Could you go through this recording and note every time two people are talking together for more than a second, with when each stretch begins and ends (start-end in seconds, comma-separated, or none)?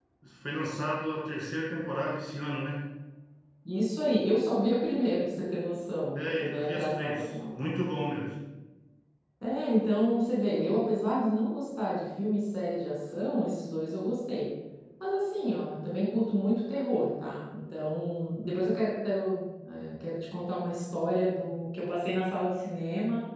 6.2-7.6